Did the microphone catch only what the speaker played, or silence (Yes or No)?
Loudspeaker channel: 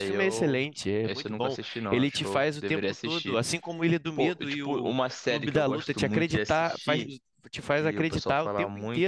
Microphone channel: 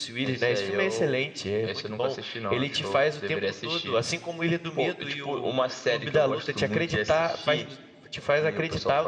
Yes